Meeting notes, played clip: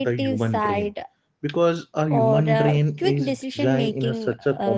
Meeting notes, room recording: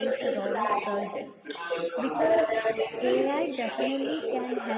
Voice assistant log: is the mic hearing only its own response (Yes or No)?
No